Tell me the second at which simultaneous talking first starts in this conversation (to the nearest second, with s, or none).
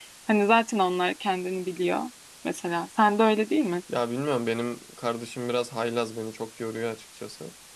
none